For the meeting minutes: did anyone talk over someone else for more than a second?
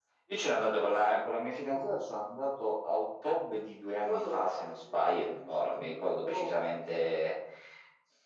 Yes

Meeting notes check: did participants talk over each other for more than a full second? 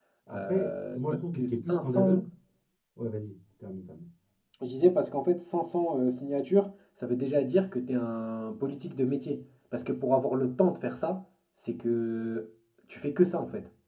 Yes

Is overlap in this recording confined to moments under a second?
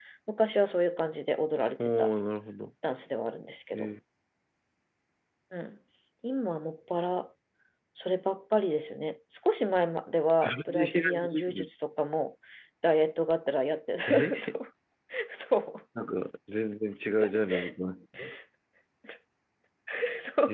No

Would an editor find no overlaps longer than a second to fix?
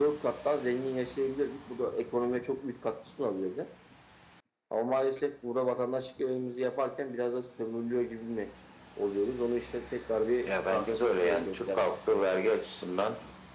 No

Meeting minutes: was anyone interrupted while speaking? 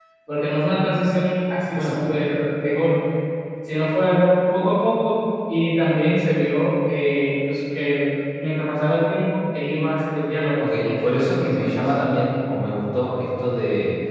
Yes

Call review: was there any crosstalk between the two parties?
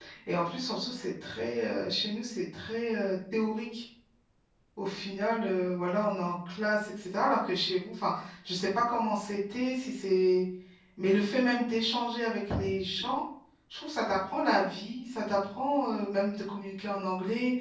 No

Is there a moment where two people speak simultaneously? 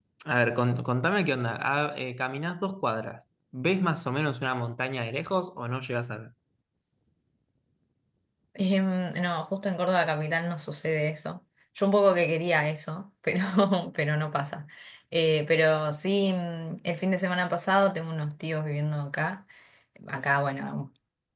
No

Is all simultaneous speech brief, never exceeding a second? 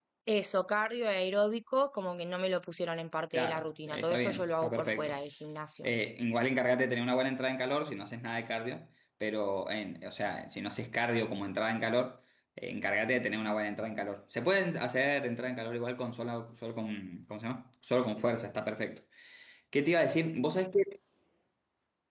No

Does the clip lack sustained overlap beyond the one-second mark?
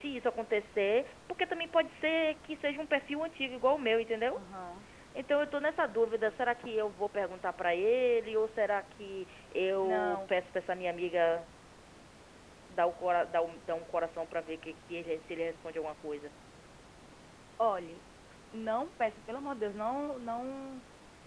Yes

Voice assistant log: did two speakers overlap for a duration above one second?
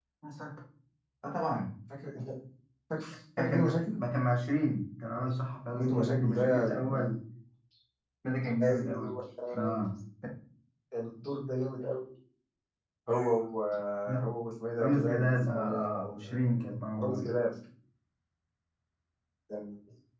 Yes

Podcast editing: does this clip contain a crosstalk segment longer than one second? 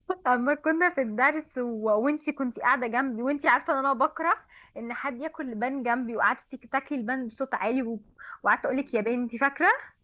No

